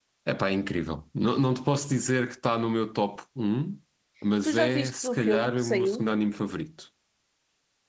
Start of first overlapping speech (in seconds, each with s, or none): 4.4 s